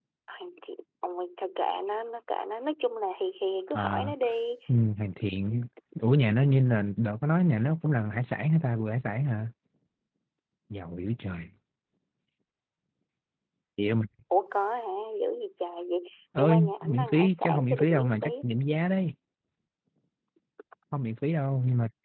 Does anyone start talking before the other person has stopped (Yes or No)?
Yes